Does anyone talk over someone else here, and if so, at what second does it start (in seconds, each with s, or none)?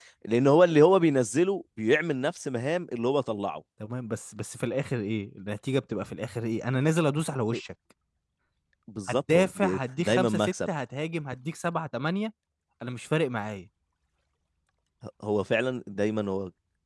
9.1 s